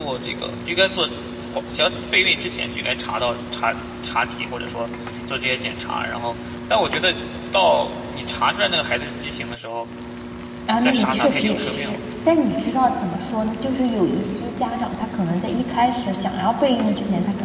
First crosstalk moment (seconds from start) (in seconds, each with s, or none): 10.7 s